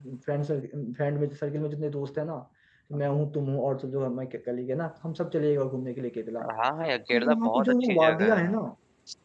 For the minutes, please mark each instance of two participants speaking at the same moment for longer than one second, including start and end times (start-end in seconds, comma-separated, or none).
7.1-8.5